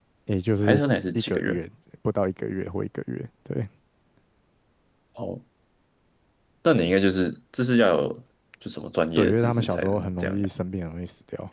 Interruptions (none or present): present